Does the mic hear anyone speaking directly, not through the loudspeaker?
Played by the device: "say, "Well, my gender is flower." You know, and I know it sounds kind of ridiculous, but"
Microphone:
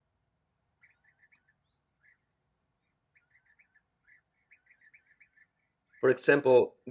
Yes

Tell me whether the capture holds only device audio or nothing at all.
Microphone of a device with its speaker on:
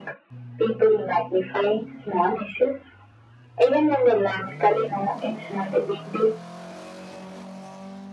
Yes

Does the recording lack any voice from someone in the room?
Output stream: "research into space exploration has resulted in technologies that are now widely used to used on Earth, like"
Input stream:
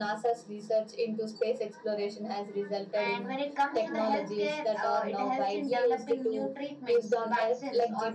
No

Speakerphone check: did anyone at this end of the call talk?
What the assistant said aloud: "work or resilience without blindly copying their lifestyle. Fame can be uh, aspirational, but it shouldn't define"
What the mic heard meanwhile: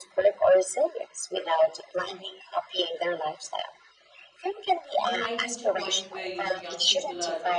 Yes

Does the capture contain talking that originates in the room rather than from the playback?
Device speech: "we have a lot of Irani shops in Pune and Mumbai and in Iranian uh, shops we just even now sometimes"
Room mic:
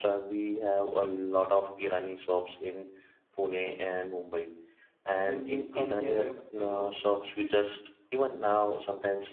Yes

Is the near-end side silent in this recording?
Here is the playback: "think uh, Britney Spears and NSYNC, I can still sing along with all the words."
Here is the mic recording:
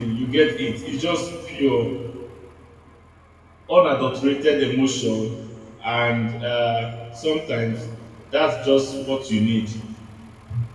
No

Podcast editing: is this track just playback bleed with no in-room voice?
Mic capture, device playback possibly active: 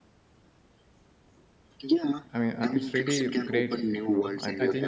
No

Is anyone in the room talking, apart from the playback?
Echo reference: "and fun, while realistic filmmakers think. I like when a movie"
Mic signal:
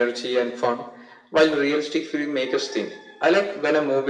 No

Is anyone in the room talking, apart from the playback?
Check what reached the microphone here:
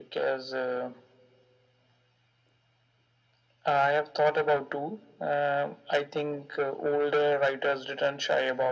No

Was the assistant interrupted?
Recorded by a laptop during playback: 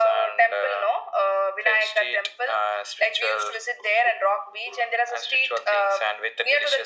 No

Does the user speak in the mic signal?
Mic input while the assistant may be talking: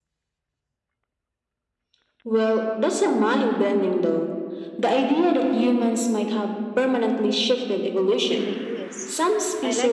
Yes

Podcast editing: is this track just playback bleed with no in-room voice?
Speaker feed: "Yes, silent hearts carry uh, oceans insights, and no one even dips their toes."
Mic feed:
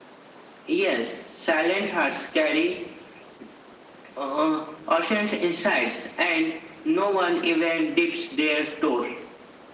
Yes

